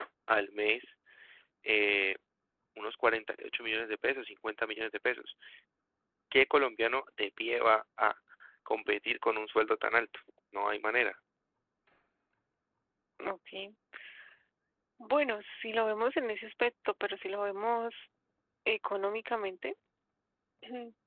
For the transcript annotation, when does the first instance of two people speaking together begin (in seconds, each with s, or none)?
none